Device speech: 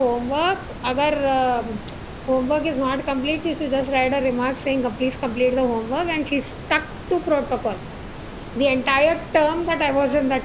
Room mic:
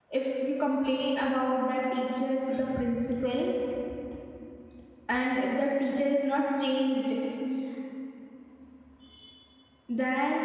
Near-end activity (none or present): present